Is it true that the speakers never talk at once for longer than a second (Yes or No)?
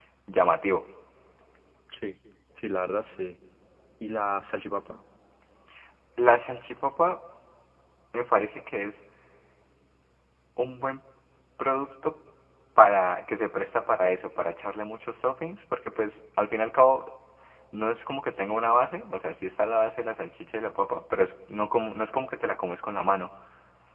Yes